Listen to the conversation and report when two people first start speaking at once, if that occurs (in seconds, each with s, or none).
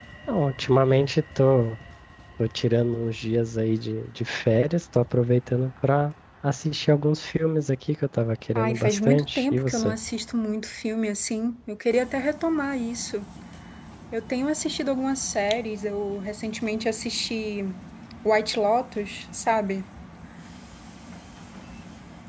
8.6 s